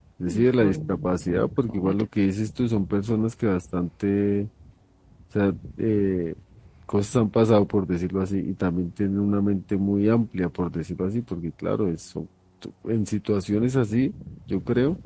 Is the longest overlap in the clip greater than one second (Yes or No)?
Yes